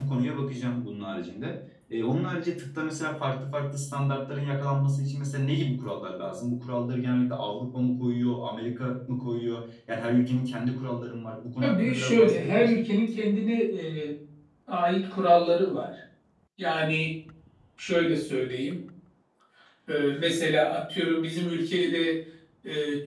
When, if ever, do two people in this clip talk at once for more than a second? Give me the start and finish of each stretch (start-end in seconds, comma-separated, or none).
11.6-12.8